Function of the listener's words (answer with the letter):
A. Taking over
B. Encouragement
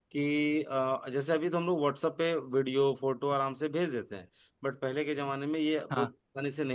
B